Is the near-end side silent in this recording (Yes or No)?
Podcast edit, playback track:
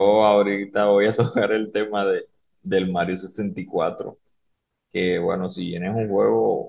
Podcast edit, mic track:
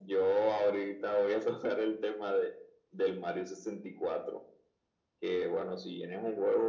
Yes